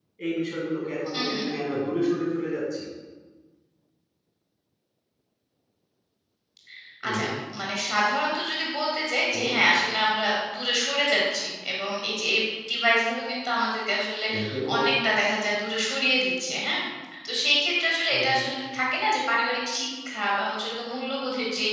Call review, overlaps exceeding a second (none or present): none